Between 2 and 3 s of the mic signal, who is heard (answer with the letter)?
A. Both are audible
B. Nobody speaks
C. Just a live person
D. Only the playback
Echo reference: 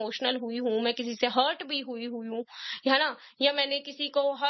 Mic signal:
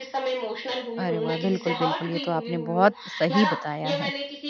A